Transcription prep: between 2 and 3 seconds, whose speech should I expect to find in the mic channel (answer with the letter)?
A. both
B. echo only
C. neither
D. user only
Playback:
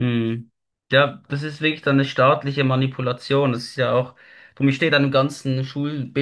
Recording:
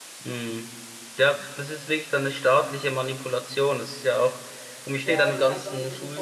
B